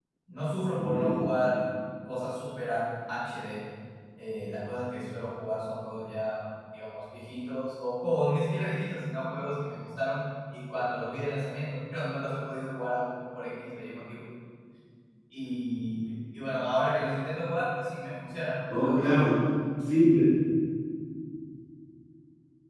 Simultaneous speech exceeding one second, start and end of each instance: none

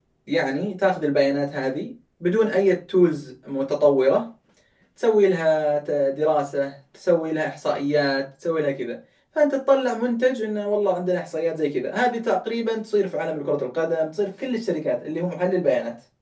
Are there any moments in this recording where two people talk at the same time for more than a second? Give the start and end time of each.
none

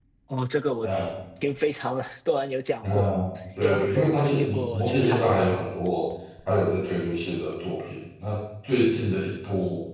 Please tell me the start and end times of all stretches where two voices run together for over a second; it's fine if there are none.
3.6-5.3

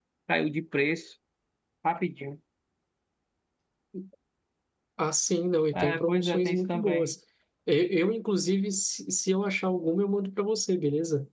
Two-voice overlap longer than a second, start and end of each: 5.7-7.1

